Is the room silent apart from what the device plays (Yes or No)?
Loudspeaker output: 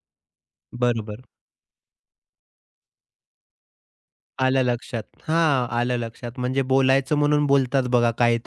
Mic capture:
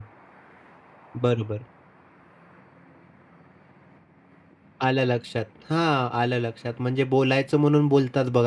Yes